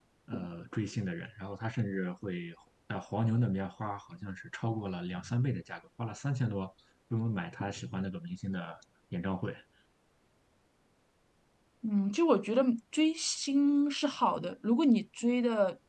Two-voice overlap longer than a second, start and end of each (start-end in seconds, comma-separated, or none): none